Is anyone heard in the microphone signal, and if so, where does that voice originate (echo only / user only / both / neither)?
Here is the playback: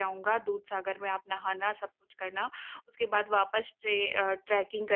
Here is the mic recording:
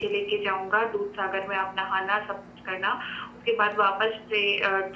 echo only